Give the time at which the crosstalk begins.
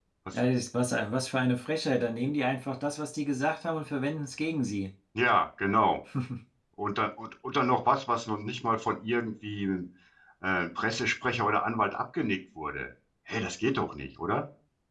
none

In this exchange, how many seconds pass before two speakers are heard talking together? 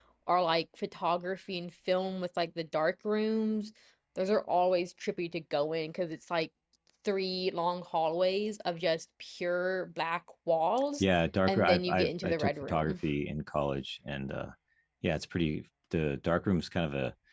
11.5 s

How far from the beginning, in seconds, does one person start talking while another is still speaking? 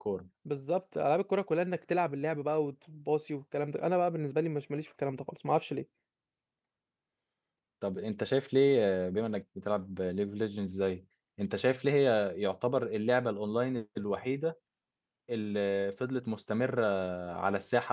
none

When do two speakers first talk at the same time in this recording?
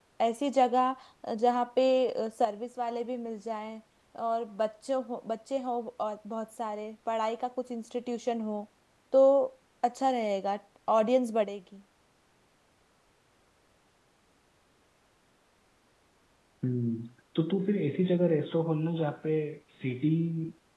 none

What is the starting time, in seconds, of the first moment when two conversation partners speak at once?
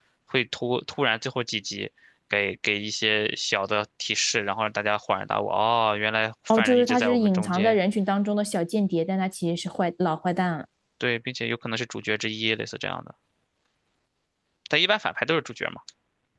6.5 s

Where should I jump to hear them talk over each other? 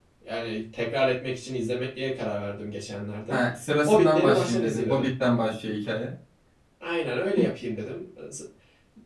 3.9 s

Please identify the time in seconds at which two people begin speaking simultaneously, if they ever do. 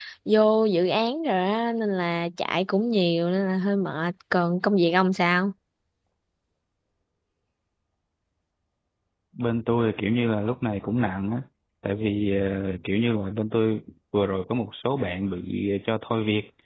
none

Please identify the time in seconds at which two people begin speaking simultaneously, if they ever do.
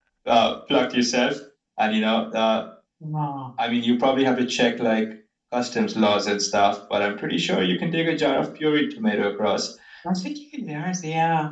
none

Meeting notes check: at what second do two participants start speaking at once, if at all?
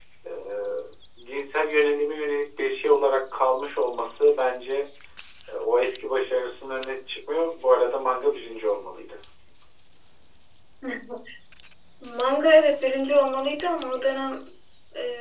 none

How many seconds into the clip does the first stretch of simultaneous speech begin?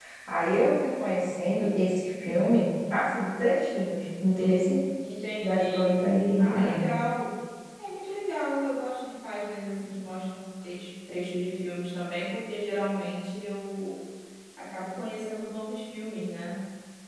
5.4 s

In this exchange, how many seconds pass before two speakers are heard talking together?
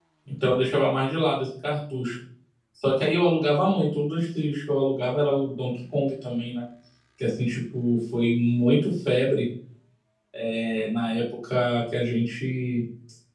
none

